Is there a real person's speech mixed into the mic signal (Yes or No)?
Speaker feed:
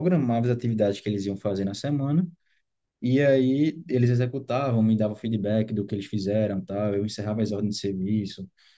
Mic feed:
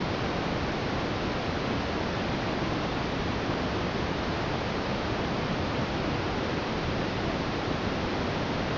No